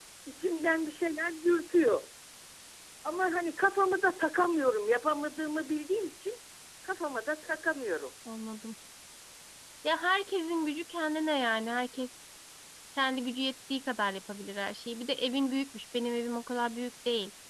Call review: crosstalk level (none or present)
none